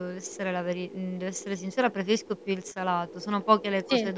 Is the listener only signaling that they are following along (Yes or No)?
Yes